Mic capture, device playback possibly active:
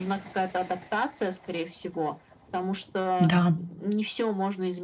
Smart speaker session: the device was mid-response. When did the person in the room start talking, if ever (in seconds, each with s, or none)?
3.2 s